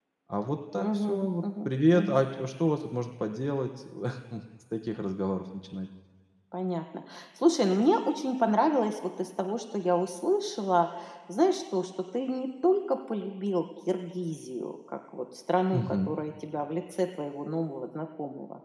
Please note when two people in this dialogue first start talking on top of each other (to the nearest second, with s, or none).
1 s